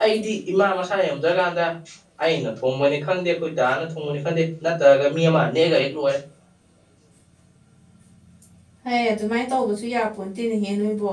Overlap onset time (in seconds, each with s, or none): none